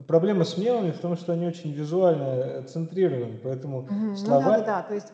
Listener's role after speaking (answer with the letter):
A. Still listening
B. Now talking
B